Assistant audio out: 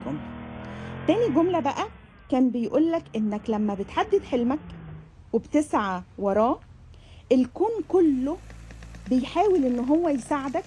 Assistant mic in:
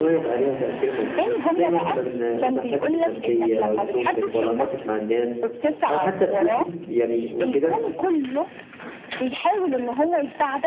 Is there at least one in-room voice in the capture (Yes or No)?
Yes